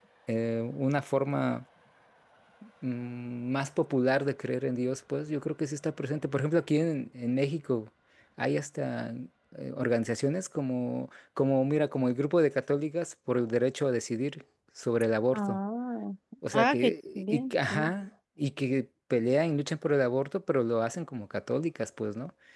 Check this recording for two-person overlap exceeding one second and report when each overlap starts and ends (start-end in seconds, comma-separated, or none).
16.5-17.9